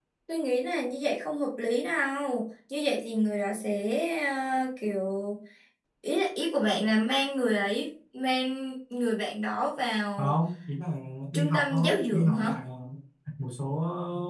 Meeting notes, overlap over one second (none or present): present